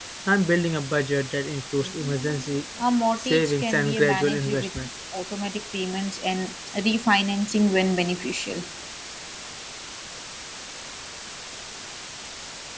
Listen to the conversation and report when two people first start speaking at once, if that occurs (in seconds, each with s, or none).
3.2 s